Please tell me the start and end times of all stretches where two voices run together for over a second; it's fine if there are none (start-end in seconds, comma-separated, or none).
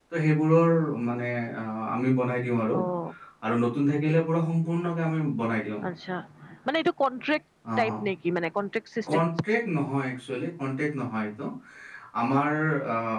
none